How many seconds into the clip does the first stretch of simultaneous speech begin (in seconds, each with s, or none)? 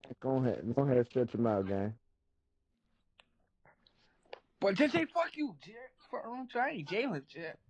none